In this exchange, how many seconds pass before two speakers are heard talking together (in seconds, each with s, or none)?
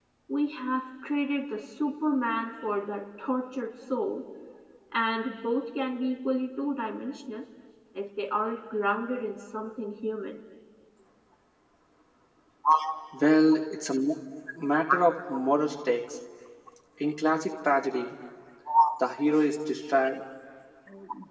none